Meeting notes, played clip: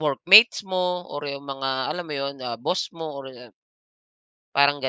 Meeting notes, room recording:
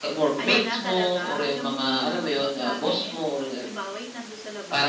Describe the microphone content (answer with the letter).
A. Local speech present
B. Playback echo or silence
A